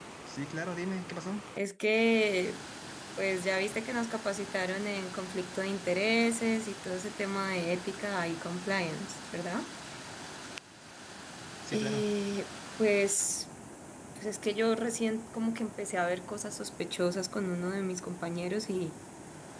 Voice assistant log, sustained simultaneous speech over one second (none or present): none